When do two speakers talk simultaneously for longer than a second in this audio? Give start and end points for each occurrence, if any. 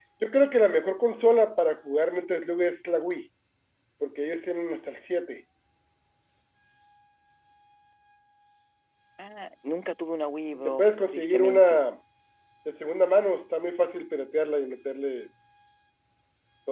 10.5-11.8

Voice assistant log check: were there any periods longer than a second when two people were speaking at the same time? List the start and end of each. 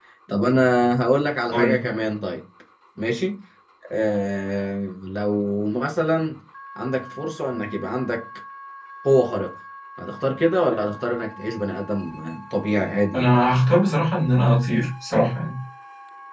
none

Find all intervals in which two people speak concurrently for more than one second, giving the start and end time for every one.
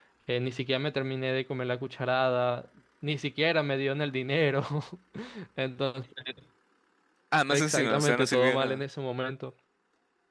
7.5-8.8

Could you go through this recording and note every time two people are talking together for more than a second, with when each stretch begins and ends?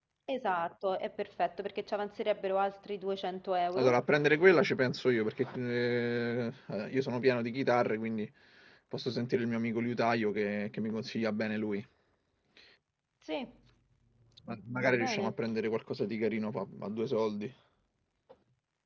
none

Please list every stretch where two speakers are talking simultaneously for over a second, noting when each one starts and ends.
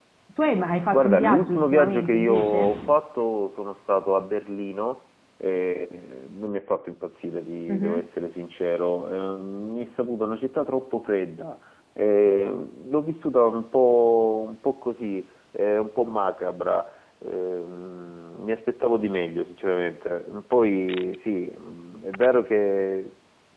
0.9-3.0

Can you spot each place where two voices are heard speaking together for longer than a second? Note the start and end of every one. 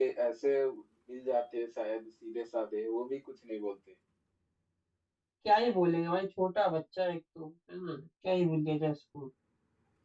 none

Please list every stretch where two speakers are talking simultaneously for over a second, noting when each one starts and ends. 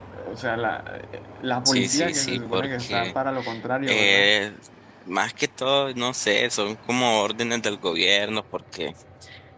1.6-3.1

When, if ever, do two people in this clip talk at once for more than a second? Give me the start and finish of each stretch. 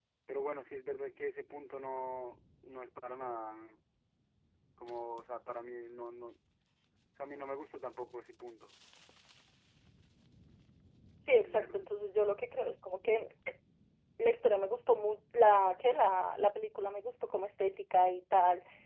none

